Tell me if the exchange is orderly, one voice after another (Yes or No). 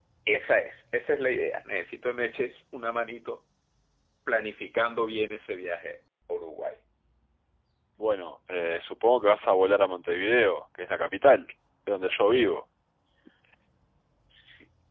Yes